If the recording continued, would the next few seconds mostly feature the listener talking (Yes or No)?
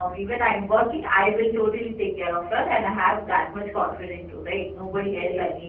No